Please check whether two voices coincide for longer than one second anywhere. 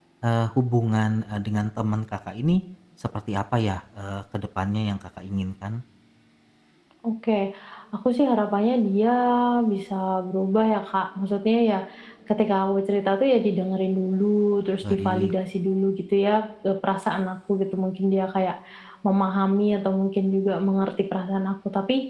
No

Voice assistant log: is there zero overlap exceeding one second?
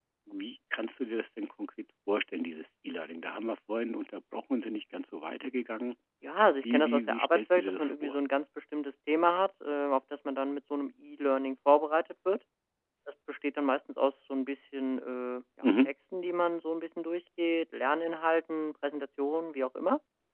No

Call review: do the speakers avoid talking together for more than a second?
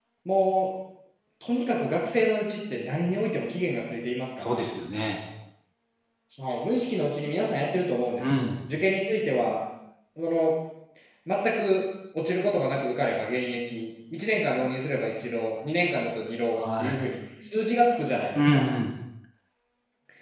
Yes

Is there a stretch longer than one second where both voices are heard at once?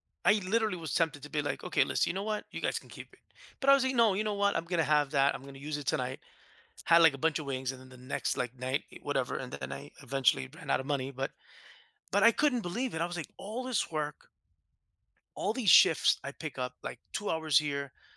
No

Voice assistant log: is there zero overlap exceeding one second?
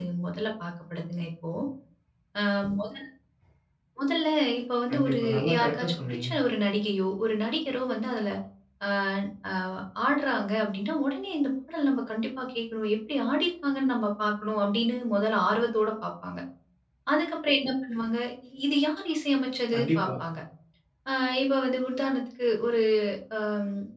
No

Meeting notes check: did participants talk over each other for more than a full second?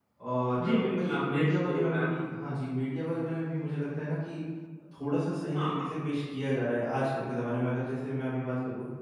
Yes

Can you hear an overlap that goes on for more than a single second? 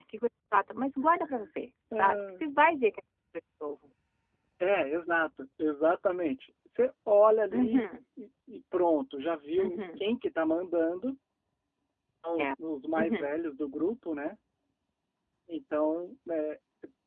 No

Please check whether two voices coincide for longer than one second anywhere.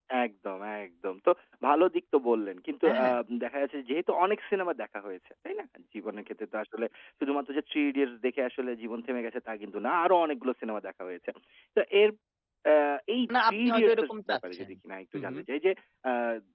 Yes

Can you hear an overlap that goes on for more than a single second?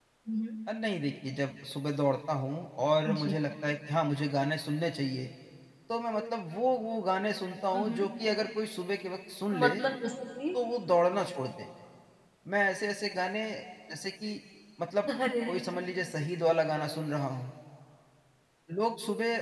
No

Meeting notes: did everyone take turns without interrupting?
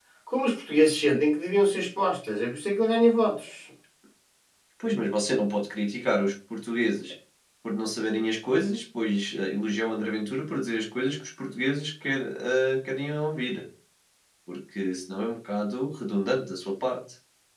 Yes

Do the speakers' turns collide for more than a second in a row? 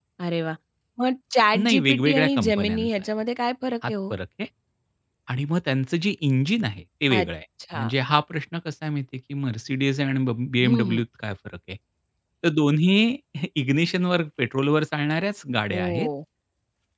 Yes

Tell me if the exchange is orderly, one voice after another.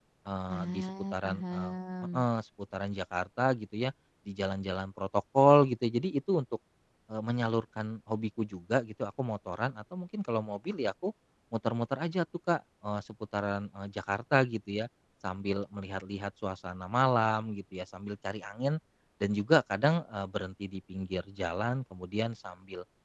No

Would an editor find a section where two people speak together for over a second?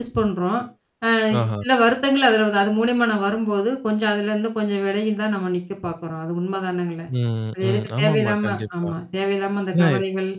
Yes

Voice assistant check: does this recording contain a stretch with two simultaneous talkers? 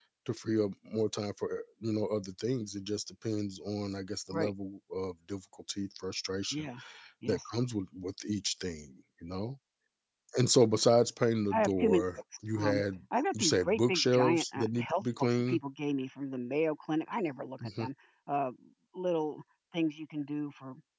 Yes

